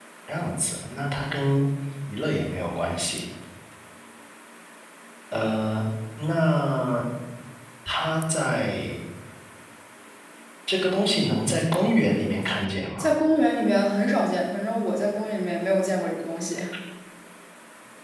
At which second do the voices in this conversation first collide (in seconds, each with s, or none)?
none